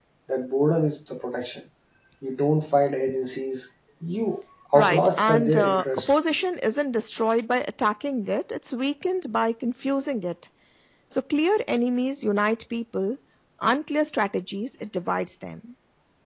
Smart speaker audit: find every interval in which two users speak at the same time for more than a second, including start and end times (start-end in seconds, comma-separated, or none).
4.7-6.1